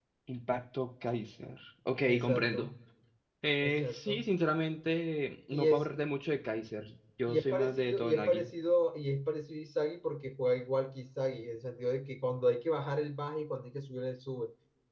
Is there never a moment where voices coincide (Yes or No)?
No